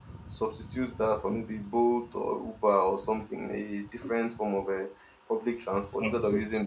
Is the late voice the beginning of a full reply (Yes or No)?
No